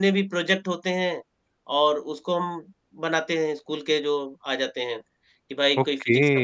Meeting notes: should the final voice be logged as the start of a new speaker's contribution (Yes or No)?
Yes